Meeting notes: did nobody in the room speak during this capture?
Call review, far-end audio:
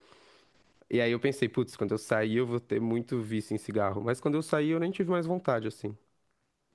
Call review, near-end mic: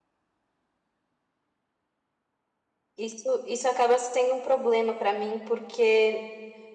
No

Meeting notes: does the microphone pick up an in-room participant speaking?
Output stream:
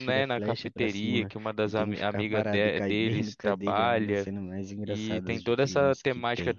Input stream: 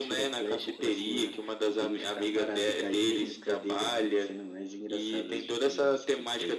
No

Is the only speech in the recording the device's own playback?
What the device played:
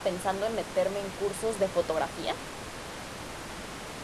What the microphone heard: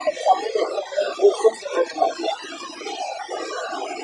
Yes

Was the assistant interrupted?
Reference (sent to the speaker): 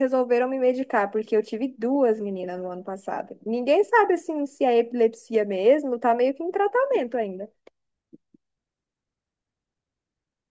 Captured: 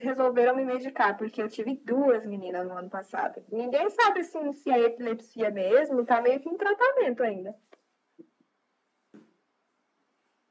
No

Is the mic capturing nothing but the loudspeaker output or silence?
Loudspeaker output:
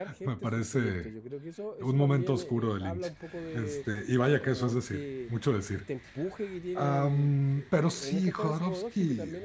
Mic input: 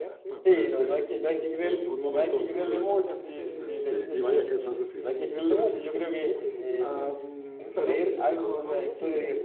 No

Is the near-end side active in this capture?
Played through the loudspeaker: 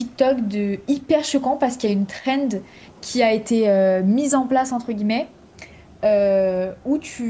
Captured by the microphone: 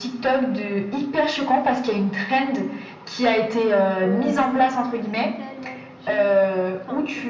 Yes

